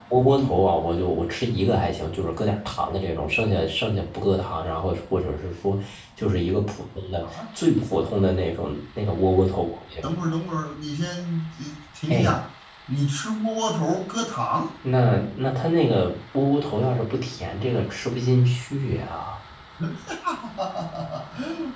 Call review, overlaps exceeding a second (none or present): none